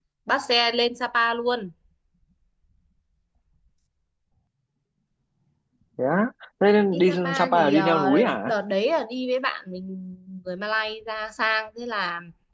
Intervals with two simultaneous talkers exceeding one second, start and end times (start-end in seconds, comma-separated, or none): 6.9-8.5